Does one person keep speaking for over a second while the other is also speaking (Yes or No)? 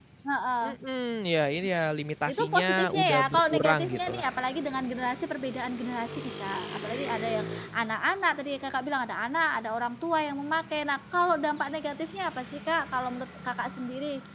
Yes